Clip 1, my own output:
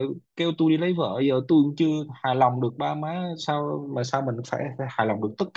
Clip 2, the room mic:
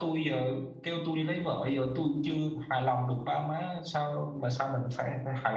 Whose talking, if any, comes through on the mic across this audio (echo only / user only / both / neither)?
echo only